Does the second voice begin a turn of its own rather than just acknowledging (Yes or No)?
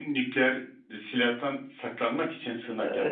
Yes